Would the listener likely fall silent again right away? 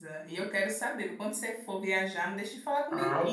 No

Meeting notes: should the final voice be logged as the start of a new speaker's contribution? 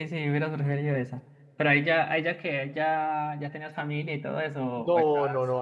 Yes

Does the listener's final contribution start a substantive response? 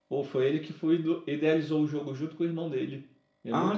Yes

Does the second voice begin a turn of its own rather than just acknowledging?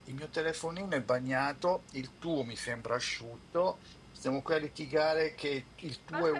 Yes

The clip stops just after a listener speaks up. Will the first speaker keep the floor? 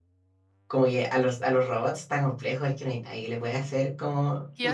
No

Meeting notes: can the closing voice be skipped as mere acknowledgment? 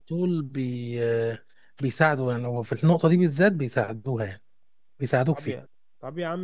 No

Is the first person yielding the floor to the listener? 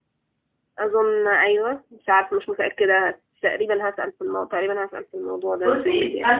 Yes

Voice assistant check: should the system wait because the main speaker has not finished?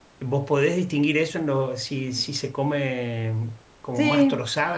Yes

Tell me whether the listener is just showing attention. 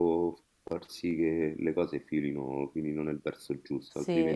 No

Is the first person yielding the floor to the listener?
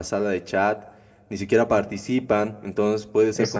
No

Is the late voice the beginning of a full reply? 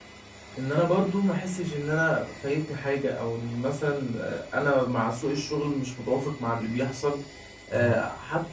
No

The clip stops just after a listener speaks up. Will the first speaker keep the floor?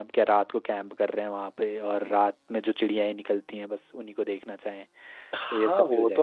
No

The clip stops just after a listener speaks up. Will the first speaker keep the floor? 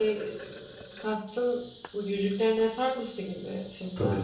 No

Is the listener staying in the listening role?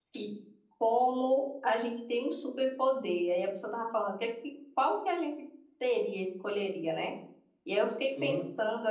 Yes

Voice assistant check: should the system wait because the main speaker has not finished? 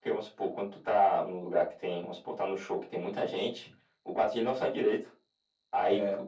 Yes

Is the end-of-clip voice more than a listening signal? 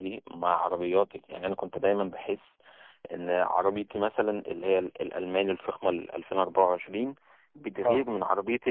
No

